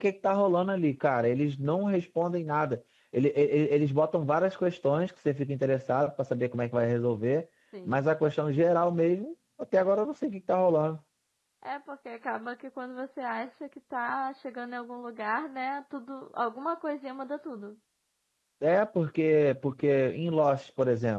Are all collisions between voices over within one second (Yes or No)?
Yes